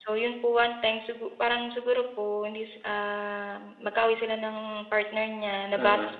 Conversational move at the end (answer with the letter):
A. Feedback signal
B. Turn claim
A